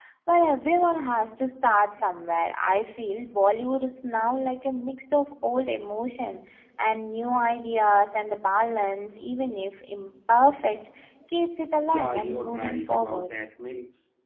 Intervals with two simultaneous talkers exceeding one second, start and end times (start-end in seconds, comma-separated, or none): 11.8-13.3